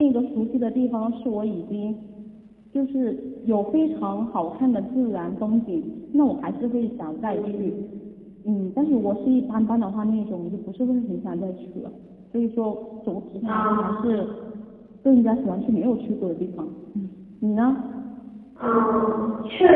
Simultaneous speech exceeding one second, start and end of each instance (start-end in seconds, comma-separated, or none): none